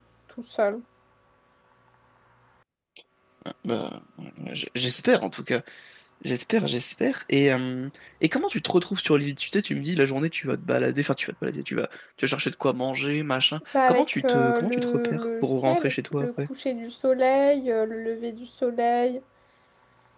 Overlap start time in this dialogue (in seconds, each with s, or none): 13.7 s